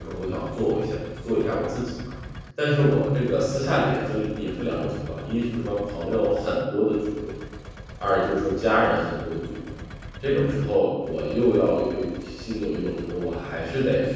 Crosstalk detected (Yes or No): No